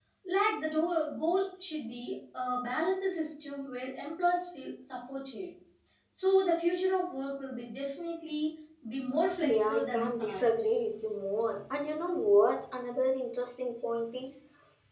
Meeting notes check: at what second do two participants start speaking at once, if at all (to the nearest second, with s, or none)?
9 s